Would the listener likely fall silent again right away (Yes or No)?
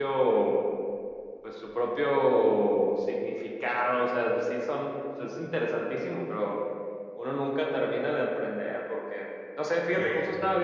Yes